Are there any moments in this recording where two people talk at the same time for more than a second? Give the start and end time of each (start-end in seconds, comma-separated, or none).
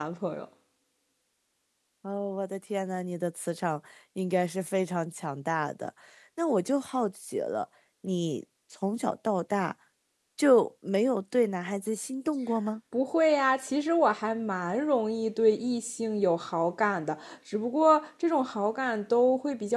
none